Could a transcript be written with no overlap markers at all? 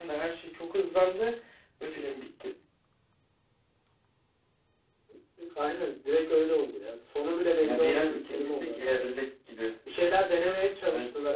No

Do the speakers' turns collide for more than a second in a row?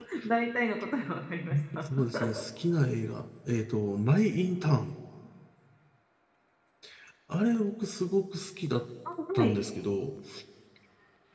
No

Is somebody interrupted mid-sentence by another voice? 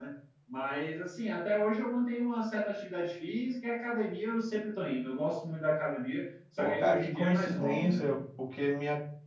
Yes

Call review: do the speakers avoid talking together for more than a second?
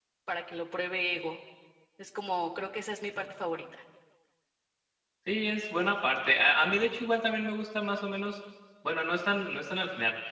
Yes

